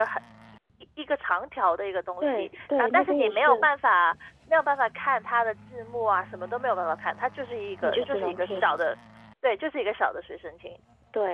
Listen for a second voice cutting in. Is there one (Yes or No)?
Yes